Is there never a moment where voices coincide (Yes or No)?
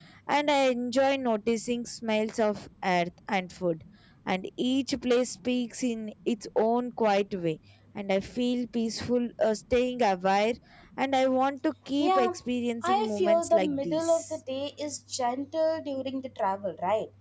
No